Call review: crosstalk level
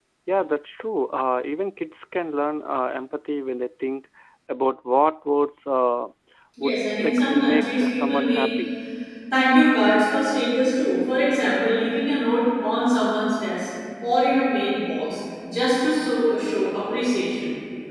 present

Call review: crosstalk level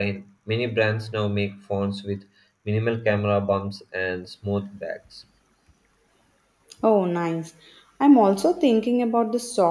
none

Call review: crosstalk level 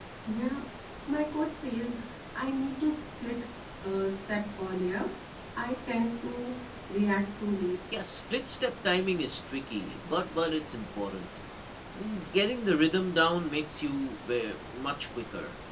none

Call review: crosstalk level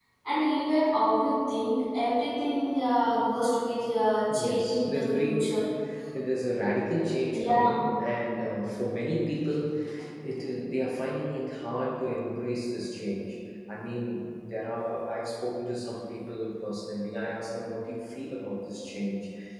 present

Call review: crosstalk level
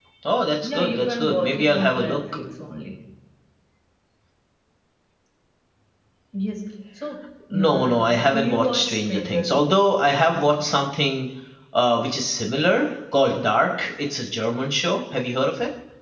present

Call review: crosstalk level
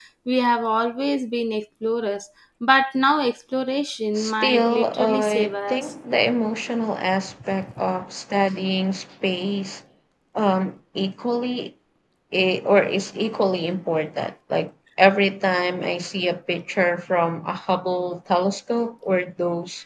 present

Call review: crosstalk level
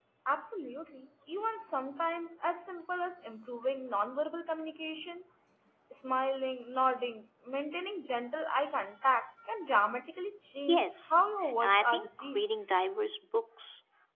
present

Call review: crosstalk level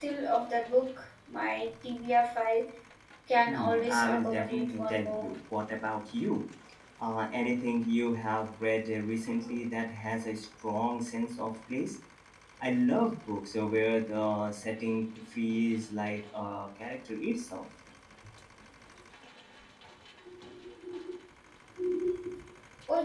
present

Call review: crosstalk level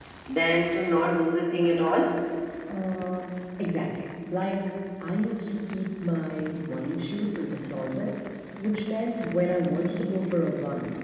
none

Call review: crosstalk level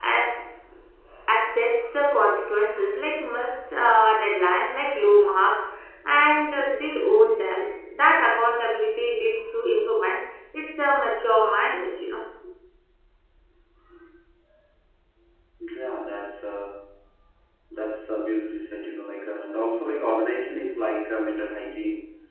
none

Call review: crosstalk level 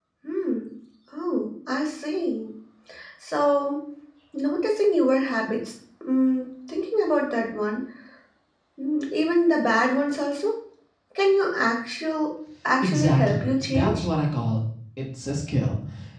present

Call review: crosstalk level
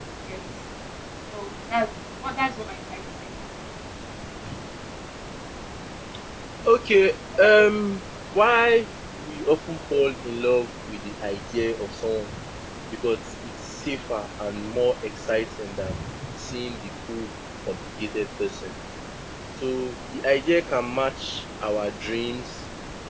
none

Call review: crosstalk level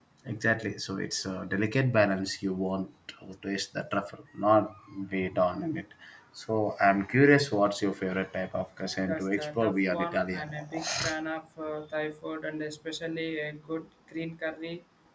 present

